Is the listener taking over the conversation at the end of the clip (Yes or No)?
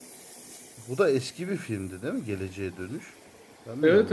Yes